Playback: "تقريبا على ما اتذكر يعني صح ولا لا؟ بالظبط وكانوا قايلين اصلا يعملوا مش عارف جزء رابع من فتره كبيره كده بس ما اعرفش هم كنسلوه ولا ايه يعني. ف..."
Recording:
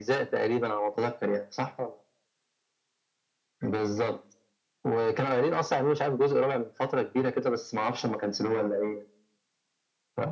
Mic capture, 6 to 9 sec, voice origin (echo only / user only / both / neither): echo only